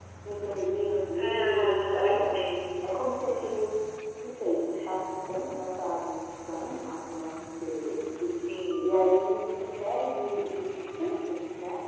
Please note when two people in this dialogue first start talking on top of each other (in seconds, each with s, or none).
1.1 s